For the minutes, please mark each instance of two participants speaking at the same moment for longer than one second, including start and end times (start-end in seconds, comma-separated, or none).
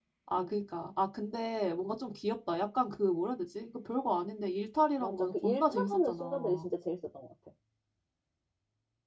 5.0-6.7